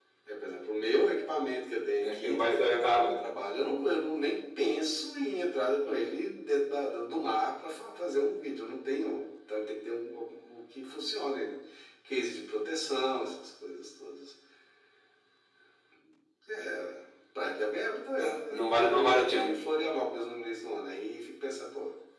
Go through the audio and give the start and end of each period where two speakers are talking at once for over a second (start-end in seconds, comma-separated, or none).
2.0-3.2, 18.2-19.5